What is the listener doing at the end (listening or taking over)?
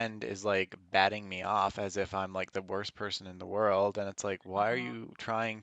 listening